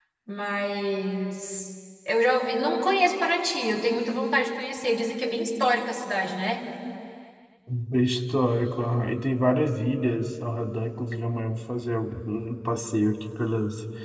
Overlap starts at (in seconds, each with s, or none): none